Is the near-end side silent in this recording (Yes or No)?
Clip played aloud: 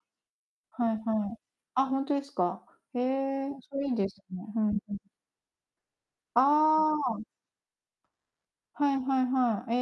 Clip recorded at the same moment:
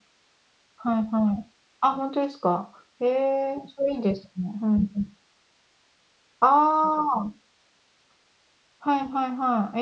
Yes